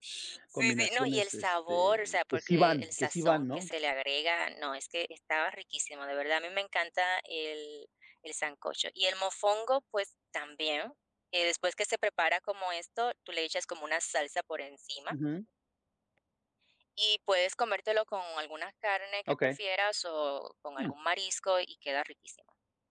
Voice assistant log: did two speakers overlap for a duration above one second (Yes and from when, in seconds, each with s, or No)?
Yes, from 0.8 s